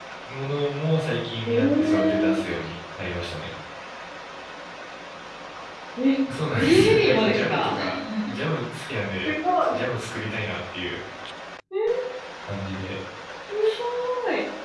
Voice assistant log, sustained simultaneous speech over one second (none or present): present